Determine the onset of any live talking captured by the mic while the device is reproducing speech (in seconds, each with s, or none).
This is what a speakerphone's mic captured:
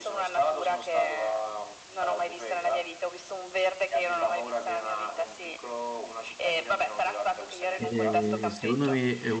7.8 s